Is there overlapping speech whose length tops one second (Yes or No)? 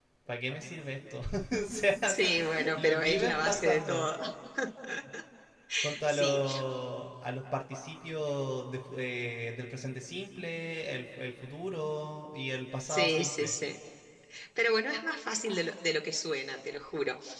Yes